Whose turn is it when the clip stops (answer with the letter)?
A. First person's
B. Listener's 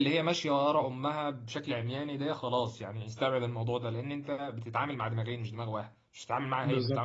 B